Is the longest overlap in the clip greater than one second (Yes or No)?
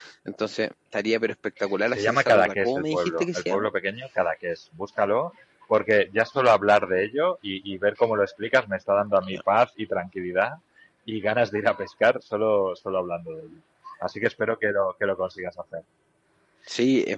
Yes